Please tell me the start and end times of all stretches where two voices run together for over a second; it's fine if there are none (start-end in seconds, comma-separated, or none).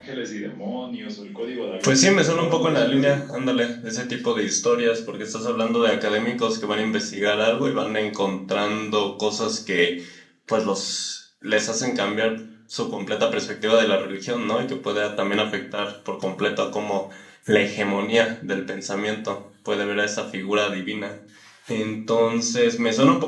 1.8-3.2